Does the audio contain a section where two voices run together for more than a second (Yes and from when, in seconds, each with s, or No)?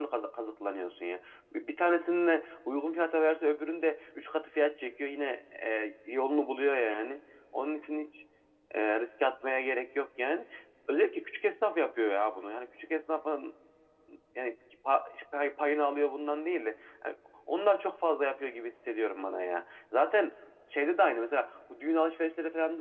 No